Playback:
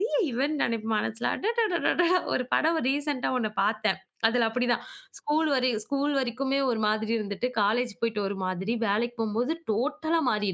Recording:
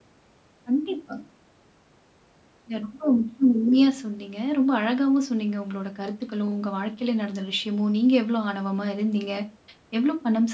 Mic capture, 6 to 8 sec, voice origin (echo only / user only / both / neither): user only